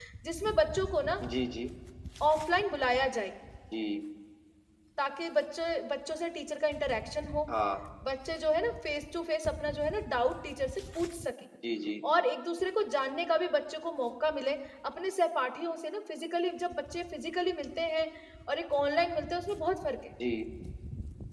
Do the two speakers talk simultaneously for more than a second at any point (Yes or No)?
No